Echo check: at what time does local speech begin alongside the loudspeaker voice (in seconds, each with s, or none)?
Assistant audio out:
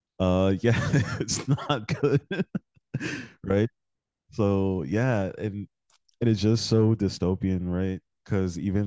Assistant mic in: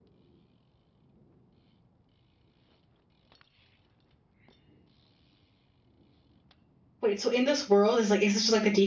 7.0 s